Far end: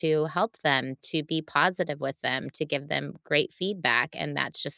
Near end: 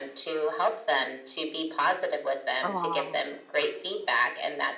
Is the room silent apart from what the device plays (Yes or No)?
No